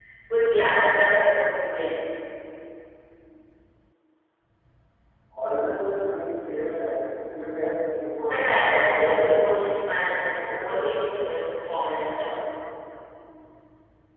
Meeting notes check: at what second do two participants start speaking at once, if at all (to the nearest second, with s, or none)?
8 s